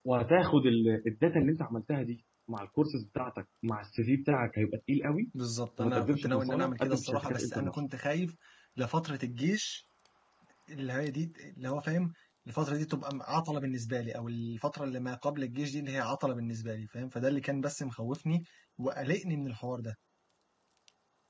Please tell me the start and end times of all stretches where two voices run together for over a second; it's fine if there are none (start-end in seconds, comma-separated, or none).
5.8-7.8